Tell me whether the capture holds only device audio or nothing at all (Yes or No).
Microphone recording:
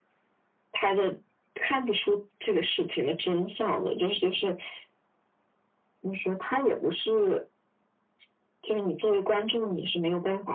Yes